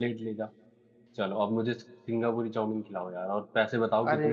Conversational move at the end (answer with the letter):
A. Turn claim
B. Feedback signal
A